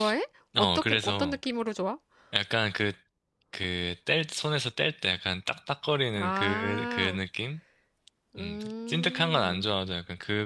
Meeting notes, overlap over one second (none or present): present